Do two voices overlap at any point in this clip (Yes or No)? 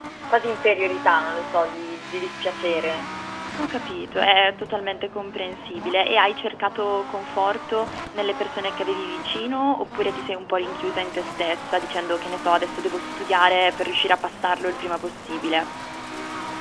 No